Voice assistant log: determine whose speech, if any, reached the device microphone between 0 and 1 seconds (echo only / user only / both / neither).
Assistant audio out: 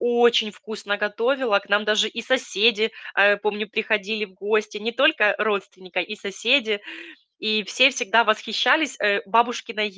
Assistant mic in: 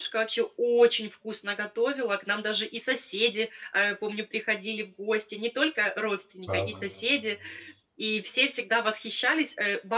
echo only